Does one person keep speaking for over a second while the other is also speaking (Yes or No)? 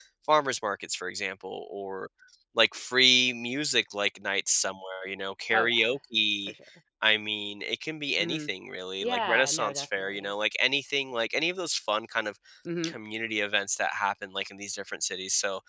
Yes